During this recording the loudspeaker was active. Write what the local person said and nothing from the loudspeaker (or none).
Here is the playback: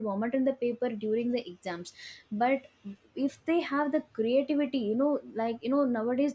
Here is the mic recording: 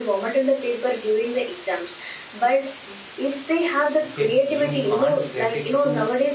okay you can't get into